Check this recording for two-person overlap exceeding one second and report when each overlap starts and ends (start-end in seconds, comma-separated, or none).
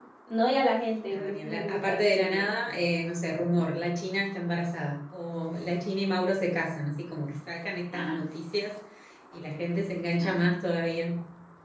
1.1-2.5